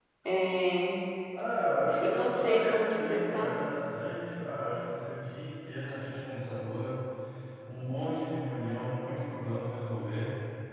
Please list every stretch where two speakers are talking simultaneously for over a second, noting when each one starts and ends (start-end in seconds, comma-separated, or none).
2.0-3.5